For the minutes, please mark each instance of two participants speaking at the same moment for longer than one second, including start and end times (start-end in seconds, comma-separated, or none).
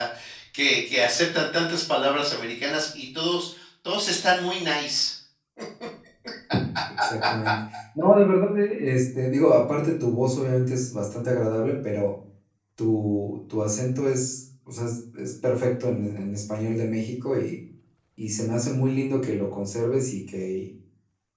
none